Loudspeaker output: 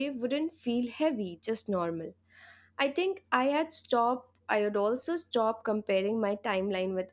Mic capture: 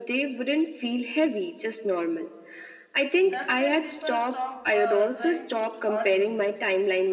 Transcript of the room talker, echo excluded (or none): that's when people stop uh, trying to altogether